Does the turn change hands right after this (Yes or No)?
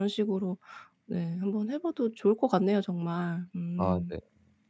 Yes